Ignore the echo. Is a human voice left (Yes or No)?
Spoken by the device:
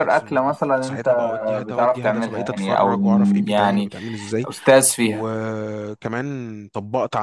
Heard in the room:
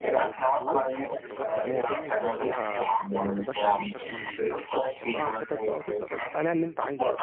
Yes